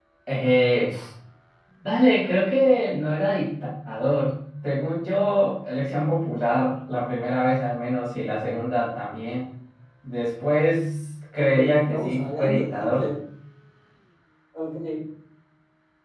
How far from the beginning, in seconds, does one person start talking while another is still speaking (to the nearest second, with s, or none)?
11 s